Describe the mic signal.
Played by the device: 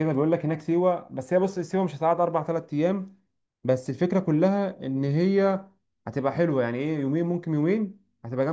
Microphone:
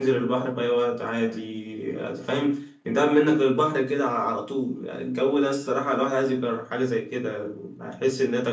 user only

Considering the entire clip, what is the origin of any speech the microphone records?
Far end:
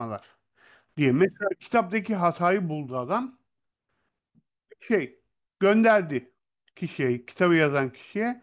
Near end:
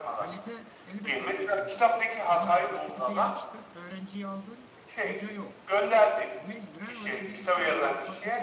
both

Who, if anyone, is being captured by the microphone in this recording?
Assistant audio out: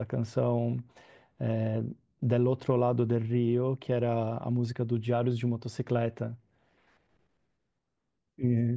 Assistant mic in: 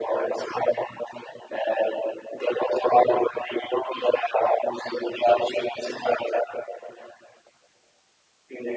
echo only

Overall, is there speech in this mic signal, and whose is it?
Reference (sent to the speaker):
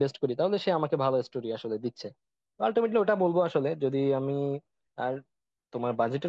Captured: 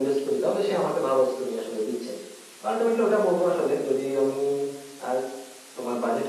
echo only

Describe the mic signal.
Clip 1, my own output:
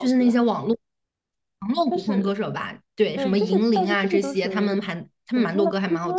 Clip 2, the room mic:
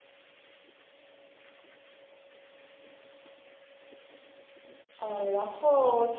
user only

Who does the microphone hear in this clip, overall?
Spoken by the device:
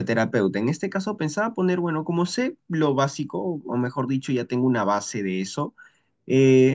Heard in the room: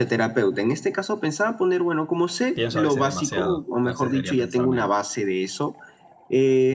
both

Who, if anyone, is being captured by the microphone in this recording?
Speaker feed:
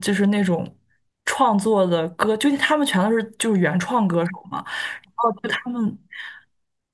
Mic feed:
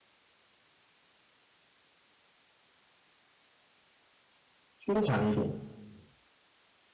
user only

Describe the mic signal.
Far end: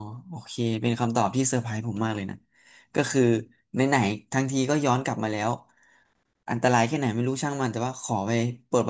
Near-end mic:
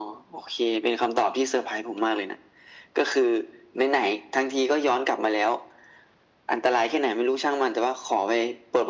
echo only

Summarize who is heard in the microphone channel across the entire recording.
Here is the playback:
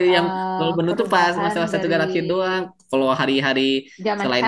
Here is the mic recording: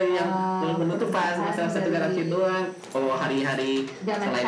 echo only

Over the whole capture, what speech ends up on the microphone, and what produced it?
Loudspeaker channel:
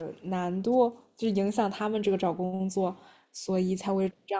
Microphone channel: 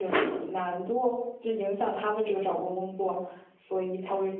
echo only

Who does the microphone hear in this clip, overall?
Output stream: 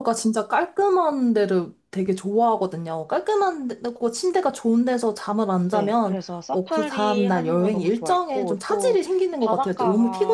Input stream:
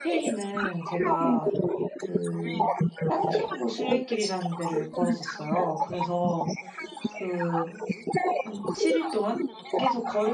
both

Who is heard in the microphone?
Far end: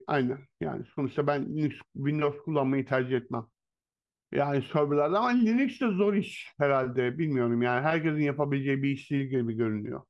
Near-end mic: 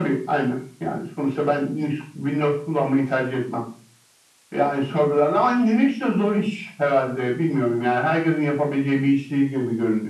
echo only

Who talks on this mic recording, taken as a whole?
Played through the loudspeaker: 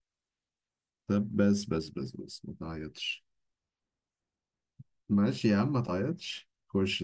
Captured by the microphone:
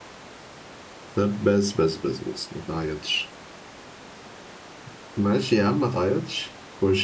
echo only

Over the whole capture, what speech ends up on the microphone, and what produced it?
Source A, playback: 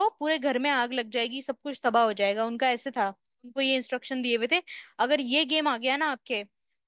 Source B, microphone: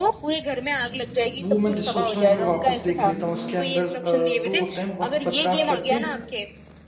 both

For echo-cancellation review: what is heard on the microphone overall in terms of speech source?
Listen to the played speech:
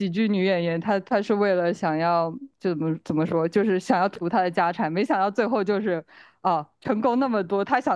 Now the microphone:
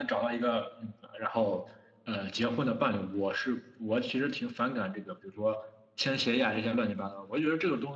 user only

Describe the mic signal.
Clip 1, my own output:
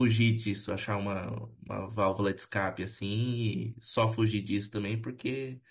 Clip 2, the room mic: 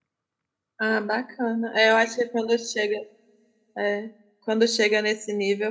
user only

